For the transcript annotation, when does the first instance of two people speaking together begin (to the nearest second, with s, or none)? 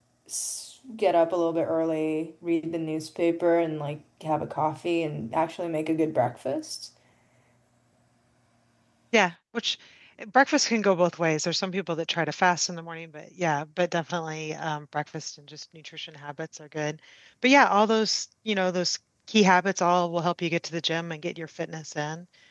none